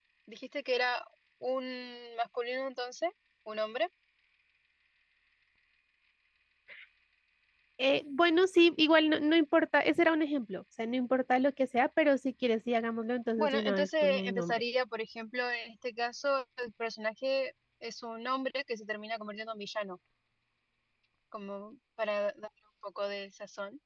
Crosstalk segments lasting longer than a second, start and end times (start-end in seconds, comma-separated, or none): 13.4-14.6